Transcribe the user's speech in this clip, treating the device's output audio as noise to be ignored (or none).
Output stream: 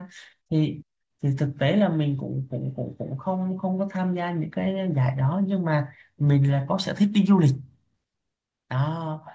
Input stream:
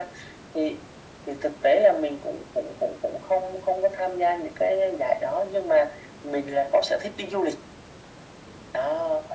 none